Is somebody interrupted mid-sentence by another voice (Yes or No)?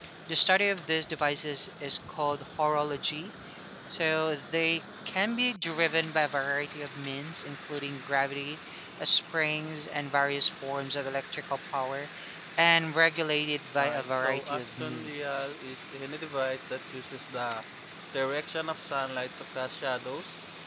Yes